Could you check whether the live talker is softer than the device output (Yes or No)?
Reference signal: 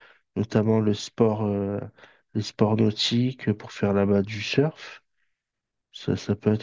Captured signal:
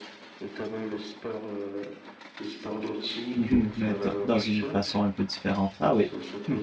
No